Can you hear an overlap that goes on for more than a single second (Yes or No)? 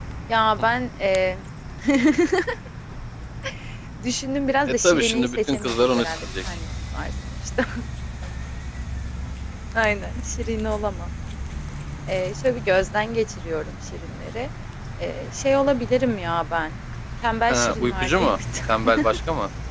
Yes